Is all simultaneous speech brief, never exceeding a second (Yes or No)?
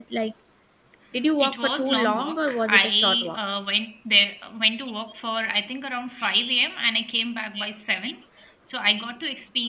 No